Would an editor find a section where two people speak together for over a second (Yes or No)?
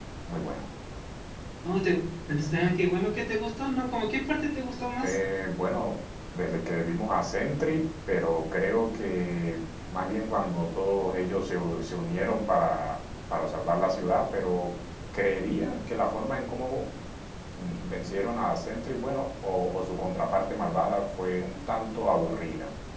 No